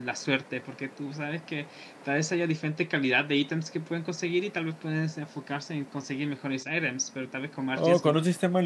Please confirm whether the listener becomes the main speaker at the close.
Yes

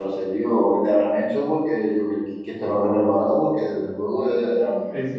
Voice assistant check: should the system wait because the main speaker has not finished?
No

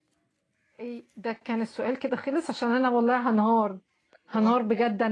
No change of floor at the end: Yes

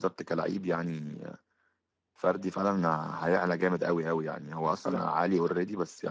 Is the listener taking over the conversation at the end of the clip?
No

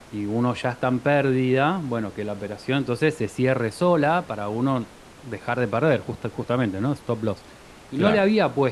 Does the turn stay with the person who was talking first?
Yes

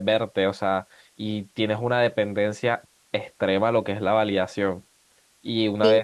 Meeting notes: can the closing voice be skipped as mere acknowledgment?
Yes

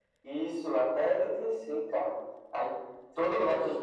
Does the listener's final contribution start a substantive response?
No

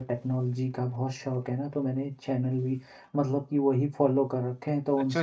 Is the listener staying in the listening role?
No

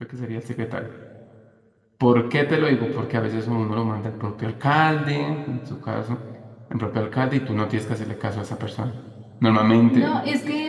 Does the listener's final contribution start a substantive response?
Yes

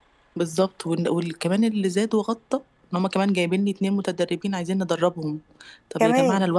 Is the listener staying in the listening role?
Yes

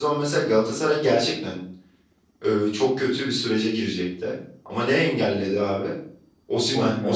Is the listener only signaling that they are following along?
Yes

